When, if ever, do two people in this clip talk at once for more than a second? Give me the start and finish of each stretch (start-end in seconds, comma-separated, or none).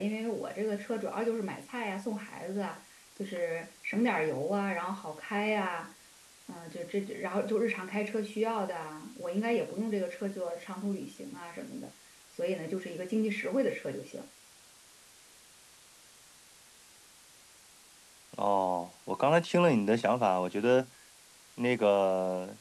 none